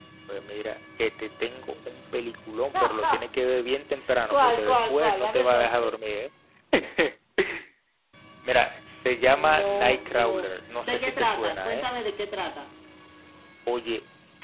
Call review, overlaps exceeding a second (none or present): present